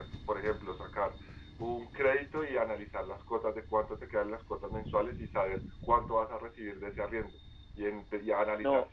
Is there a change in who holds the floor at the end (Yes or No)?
No